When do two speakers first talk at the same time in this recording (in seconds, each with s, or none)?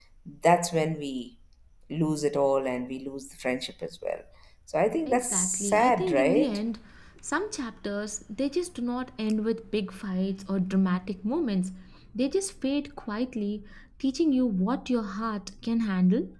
5.1 s